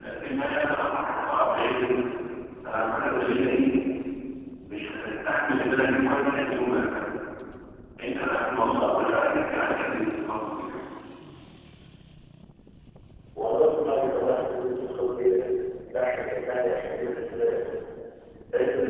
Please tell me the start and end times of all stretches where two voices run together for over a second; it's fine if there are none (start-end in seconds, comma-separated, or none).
none